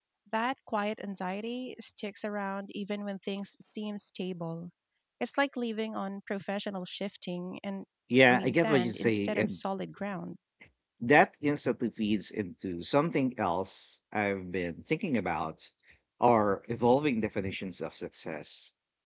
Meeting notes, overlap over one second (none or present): present